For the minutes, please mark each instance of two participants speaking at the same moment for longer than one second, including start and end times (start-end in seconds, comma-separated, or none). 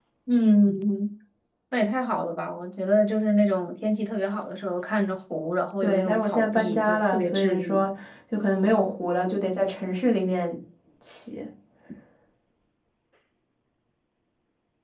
5.8-7.9